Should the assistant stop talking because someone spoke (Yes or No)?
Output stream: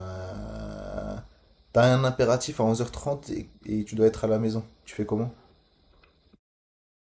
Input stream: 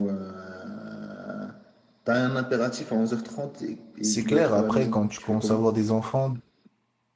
Yes